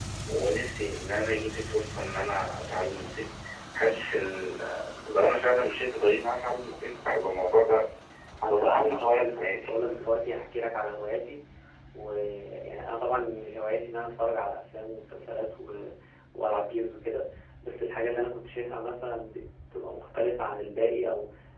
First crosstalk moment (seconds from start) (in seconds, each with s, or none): 8.5 s